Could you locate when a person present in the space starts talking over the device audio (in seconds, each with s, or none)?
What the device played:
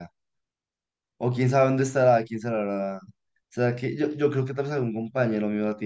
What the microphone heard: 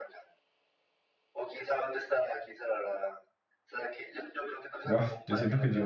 4.8 s